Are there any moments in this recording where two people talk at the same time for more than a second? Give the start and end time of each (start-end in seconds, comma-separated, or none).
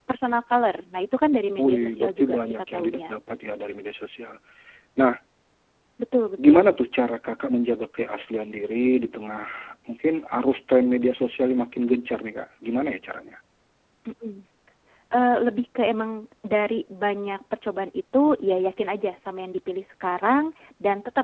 1.6-3.1